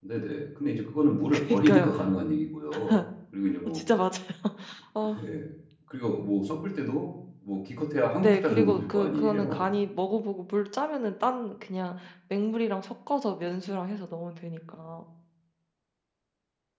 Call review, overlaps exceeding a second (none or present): present